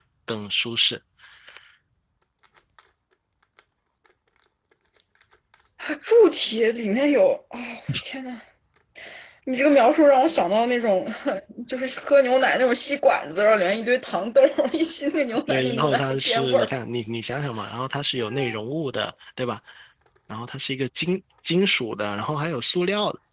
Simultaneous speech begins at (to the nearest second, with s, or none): 15 s